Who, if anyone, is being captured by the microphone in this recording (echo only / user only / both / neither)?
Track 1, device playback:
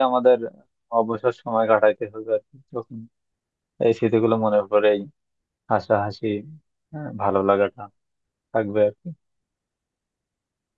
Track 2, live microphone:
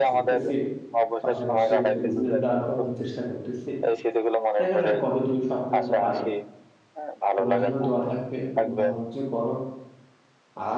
both